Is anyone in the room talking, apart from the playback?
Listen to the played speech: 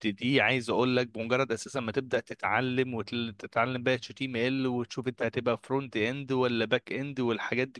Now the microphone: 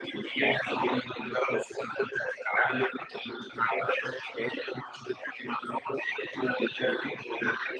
No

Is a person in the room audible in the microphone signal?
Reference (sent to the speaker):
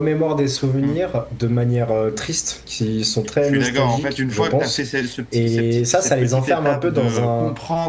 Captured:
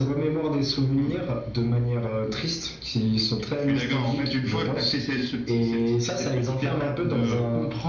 No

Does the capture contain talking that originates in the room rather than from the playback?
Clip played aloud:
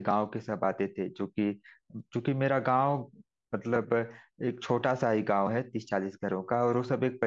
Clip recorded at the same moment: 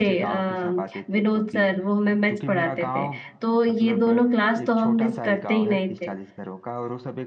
Yes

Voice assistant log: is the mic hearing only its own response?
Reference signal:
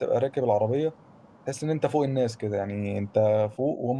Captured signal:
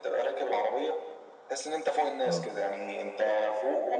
No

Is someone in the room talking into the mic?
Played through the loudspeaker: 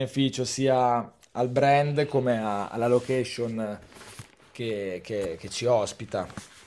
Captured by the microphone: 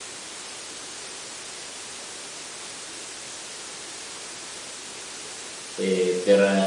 Yes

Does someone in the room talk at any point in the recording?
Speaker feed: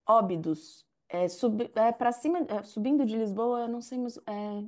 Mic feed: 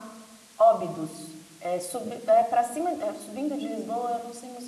No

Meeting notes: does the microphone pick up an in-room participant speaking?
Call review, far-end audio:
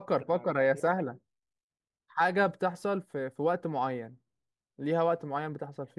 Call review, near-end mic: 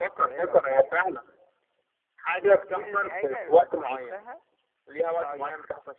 Yes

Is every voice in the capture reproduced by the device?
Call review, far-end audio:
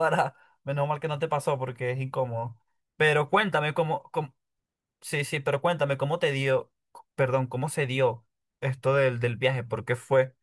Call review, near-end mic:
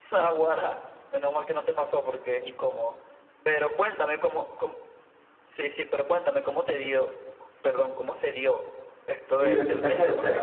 No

